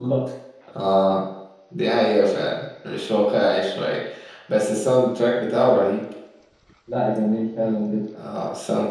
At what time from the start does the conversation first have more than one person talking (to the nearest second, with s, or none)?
none